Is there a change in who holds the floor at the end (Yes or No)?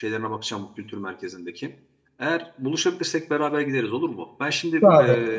No